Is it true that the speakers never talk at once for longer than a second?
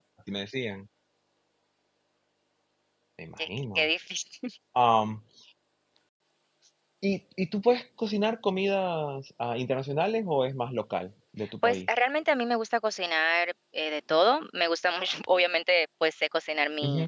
Yes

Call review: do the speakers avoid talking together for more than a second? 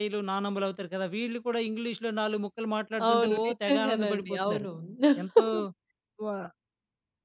No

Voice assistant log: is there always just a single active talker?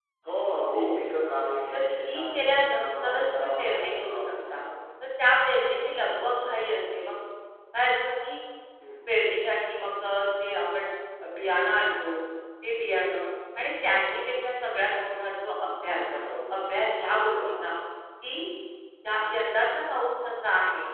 No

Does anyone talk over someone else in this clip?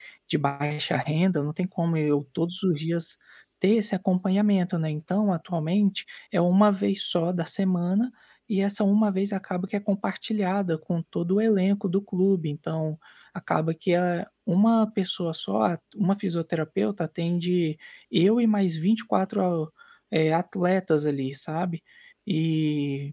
No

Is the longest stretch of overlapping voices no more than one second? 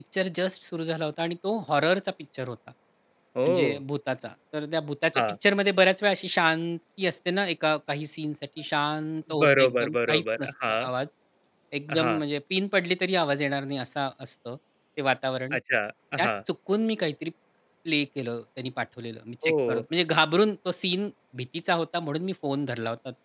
No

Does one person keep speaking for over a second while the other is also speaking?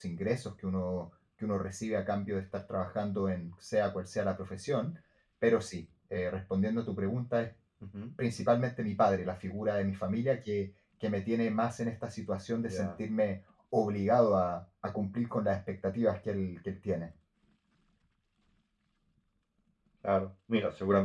No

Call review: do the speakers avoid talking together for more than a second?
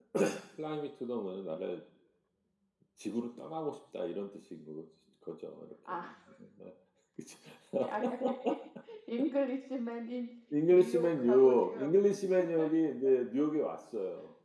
No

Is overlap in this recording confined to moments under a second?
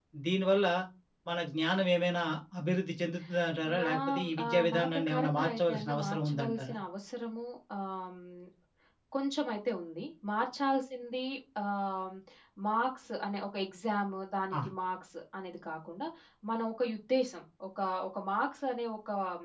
No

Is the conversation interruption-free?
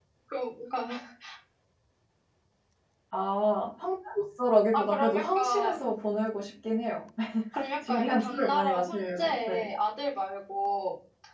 No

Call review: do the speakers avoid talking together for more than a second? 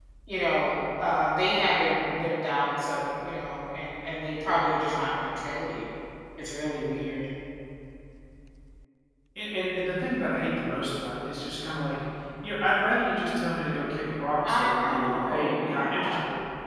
No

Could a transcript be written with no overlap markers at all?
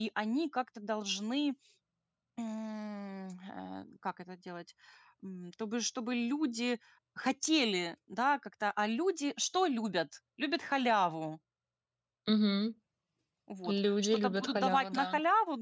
No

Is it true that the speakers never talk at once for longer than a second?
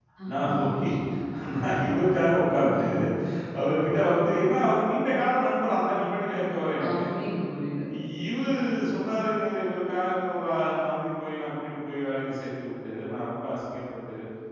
Yes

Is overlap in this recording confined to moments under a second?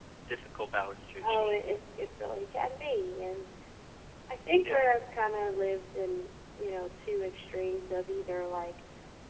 Yes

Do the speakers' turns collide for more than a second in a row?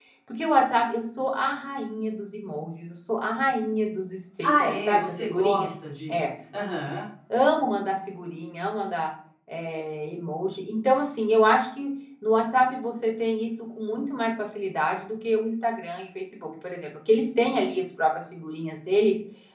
Yes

